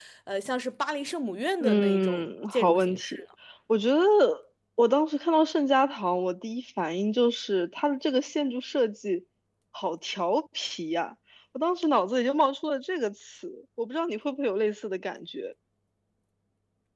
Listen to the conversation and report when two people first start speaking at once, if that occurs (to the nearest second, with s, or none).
2 s